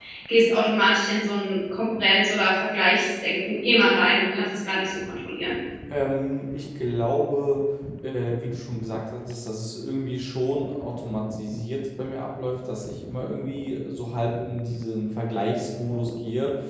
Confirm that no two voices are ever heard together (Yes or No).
Yes